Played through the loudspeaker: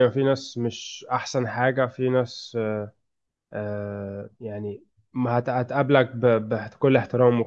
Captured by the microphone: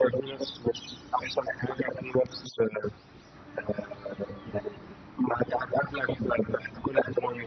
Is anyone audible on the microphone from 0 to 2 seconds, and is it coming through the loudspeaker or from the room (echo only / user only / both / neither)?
echo only